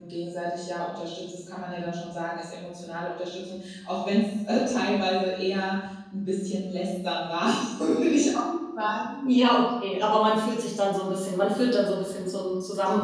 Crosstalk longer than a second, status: none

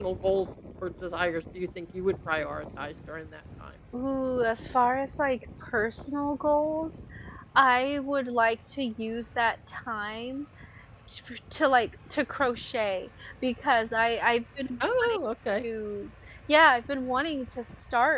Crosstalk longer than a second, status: none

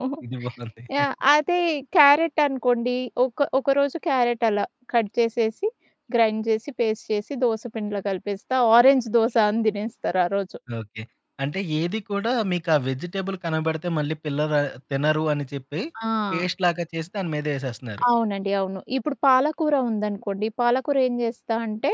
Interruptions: none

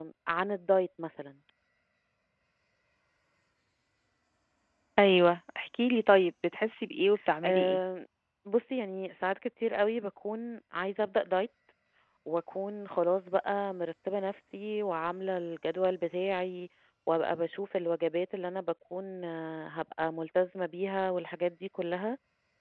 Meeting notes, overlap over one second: none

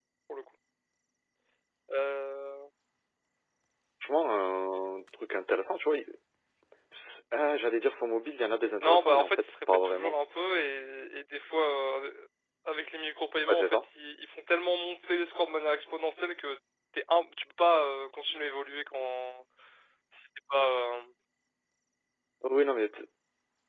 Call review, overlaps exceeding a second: present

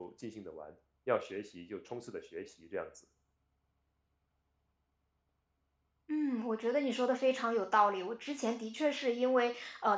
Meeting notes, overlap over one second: none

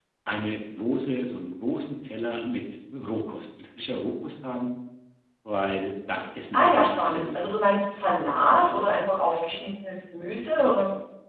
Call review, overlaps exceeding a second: present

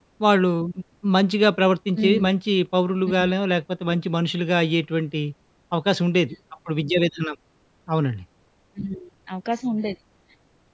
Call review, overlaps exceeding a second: none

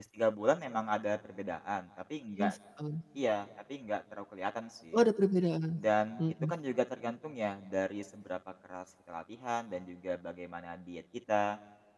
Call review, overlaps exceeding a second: none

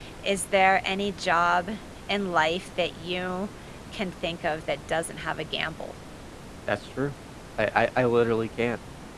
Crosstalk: none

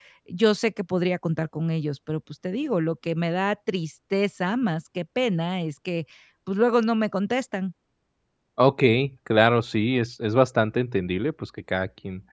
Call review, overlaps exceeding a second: none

